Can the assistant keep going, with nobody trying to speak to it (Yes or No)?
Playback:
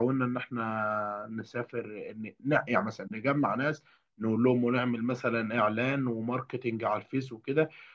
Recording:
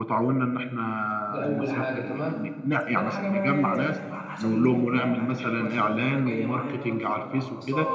No